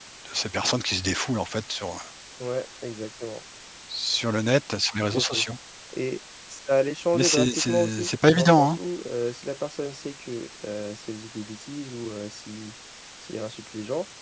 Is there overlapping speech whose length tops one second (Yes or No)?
Yes